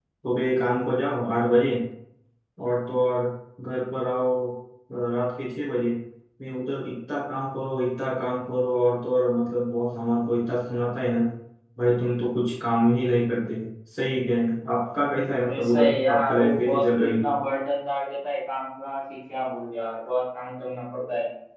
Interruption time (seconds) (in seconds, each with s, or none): 15.5 s